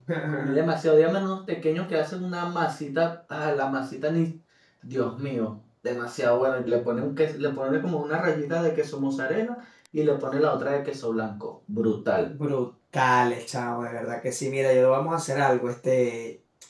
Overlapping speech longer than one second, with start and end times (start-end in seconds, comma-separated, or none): none